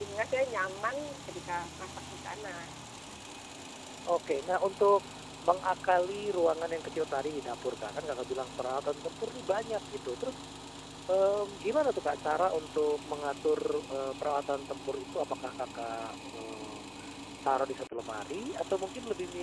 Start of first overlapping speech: none

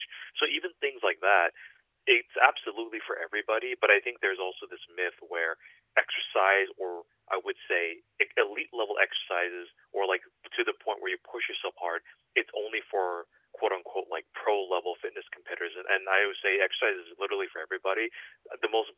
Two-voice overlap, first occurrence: none

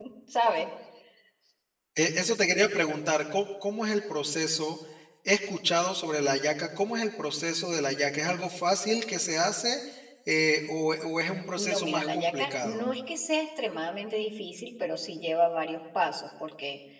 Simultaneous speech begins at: 11.6 s

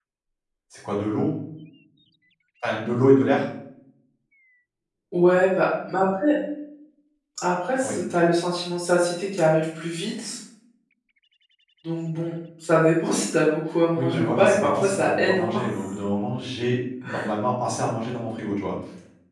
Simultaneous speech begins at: 14.0 s

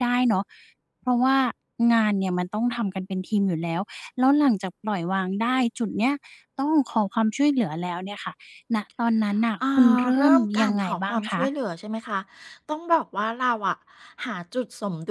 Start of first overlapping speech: 9.6 s

